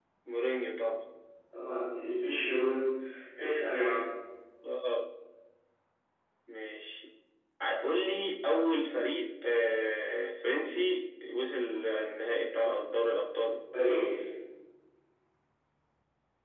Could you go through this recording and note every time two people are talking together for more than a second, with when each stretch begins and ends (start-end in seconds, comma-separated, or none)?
none